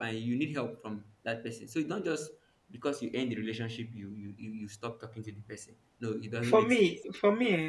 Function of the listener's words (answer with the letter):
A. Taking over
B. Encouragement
A